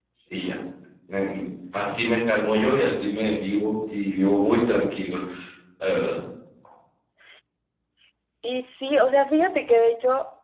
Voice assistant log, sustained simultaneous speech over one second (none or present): none